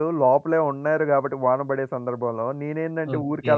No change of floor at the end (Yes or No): Yes